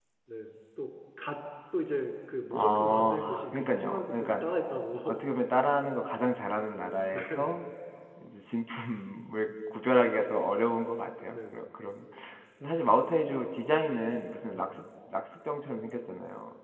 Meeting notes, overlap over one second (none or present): present